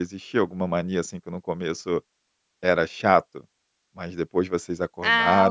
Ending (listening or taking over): taking over